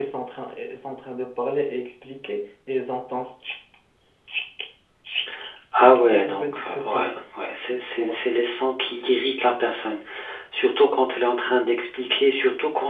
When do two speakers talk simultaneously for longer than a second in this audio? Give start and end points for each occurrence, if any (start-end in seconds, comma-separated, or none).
5.7-7.2